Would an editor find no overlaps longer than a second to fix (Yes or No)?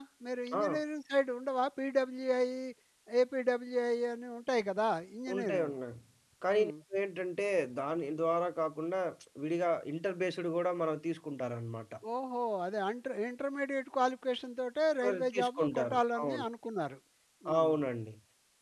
No